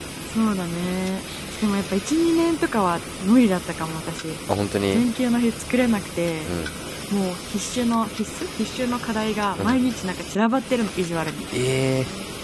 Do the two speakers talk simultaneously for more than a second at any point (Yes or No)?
No